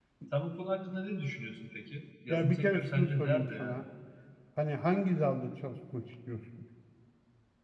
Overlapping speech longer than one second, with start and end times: 2.3-3.8

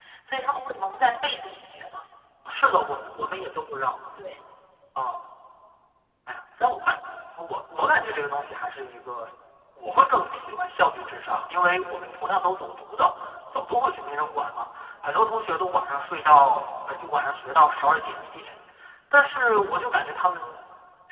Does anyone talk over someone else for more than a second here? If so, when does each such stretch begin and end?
none

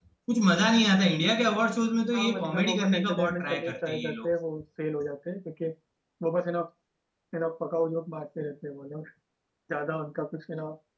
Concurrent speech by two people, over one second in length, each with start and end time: 2.1-4.3

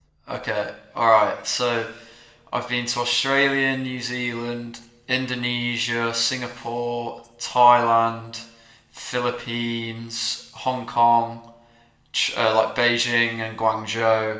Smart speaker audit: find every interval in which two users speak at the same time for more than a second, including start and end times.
none

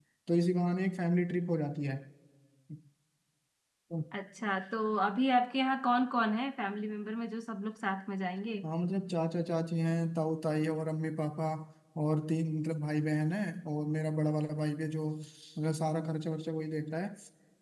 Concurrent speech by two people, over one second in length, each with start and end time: none

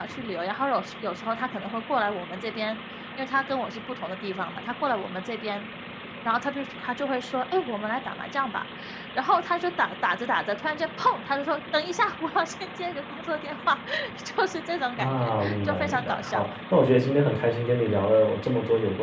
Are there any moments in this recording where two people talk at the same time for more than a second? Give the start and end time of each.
15.0-16.4

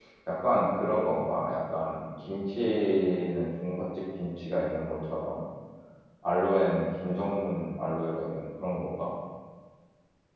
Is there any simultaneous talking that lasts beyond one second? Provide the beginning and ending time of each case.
none

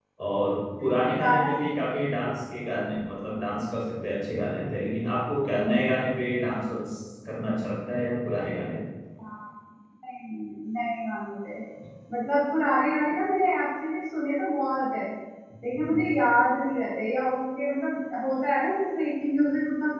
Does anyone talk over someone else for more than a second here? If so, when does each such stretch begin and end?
0.8-2.2

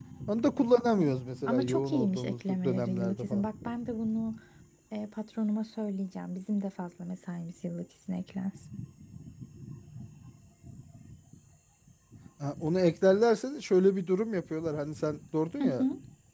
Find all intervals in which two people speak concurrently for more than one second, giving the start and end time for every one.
1.5-3.5

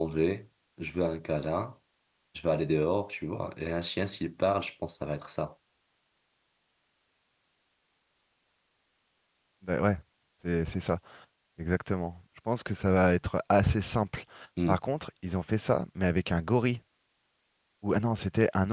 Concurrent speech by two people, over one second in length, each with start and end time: none

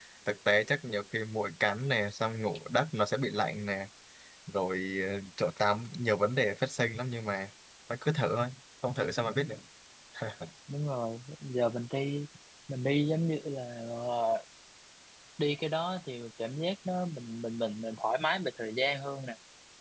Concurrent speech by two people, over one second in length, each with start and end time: none

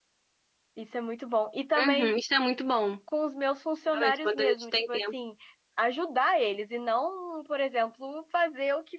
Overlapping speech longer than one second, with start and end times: 3.9-5.1

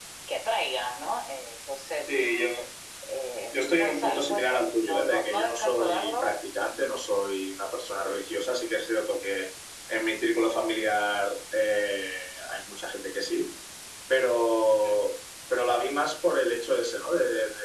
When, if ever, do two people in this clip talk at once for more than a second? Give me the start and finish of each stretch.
3.5-6.3

